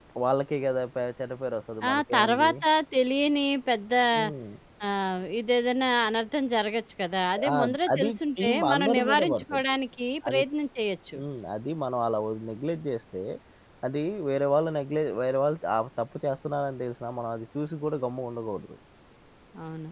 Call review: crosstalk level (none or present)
present